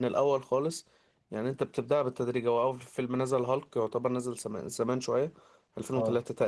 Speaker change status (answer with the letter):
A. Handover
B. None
B